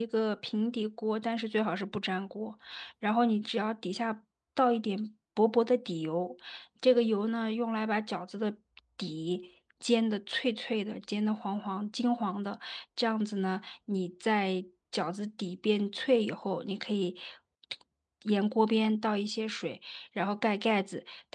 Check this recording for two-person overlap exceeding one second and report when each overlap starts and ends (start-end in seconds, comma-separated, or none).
none